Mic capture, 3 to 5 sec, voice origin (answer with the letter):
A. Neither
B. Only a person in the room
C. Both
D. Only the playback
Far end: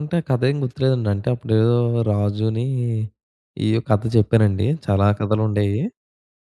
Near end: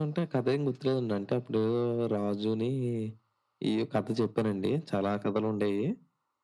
D